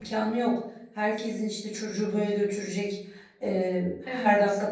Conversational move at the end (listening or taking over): listening